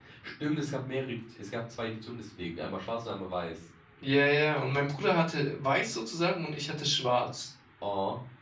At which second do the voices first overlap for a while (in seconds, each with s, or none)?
none